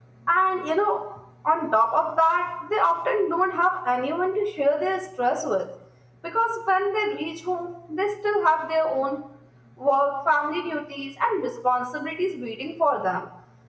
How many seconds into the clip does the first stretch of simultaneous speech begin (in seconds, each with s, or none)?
none